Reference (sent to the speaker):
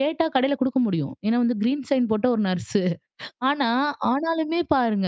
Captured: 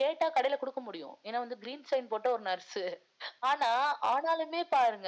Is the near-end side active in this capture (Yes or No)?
No